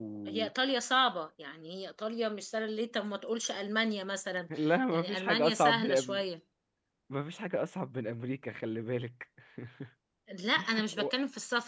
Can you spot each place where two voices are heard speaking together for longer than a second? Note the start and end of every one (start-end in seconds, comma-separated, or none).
4.9-6.2